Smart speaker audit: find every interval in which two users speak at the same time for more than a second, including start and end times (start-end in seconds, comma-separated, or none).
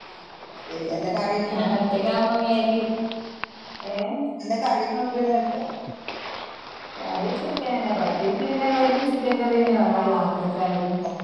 none